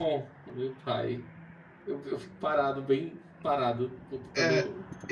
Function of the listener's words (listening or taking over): taking over